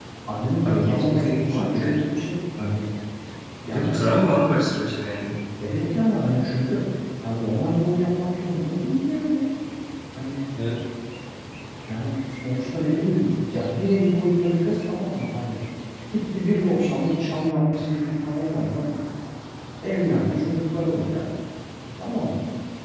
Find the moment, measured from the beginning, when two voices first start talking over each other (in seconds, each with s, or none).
0.6 s